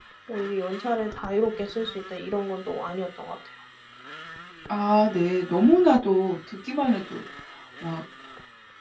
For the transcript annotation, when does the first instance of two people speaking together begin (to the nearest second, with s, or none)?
none